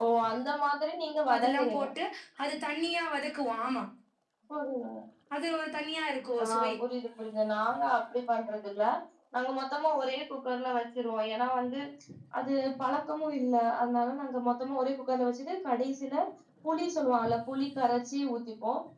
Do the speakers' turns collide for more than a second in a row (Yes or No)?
No